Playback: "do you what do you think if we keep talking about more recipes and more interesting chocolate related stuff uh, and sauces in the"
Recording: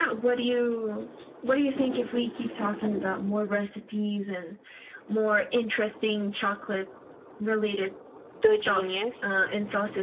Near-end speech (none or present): present